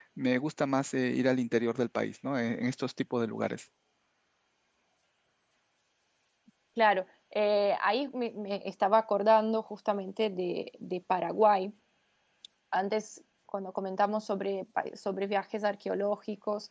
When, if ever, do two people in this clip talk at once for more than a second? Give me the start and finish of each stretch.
none

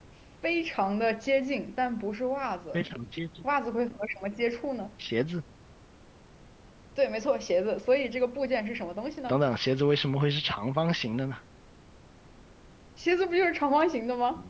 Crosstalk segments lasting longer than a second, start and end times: none

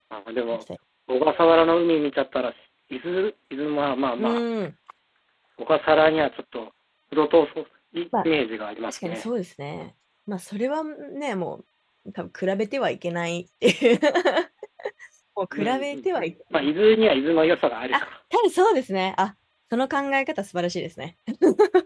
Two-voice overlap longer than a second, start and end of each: none

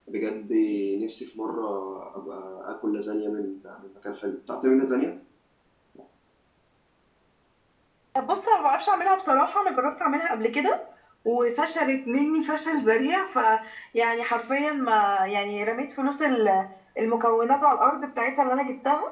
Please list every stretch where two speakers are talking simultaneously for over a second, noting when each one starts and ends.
none

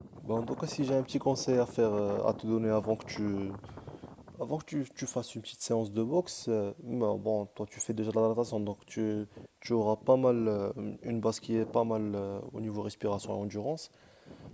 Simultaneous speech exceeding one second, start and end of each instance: none

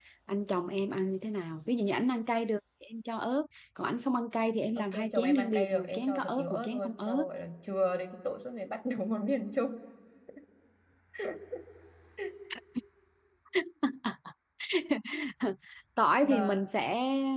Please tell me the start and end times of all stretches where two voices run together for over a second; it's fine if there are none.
4.8-7.2

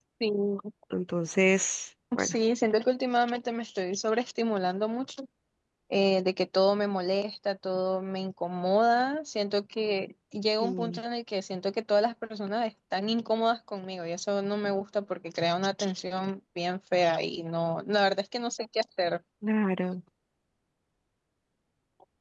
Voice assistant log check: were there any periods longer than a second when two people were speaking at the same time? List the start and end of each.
none

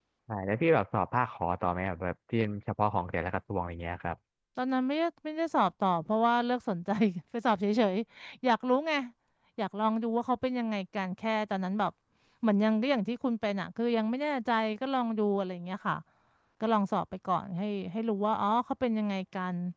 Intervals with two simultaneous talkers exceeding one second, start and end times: none

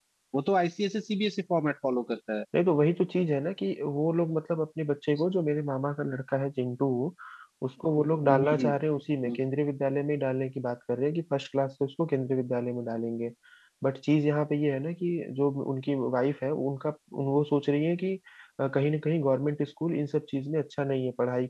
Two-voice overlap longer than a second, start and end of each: none

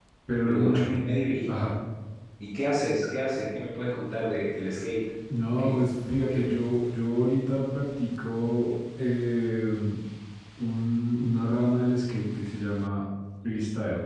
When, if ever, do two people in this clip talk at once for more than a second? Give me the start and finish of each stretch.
none

